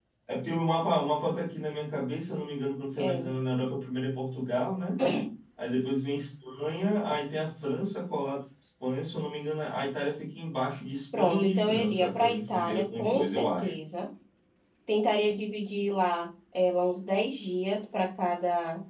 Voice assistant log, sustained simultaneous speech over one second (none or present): present